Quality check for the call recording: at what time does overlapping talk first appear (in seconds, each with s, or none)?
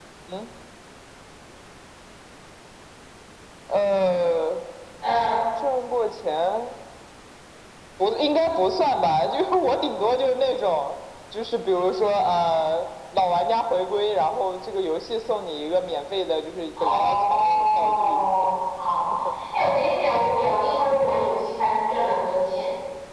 16.8 s